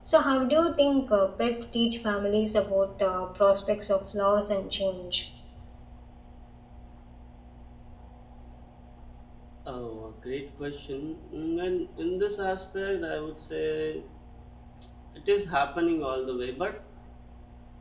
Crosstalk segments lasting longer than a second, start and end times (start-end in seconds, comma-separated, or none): none